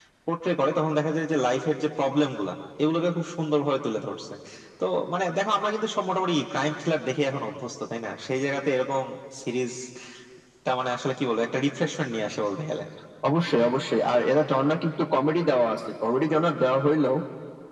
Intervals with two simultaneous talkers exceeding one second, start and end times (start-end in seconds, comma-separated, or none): none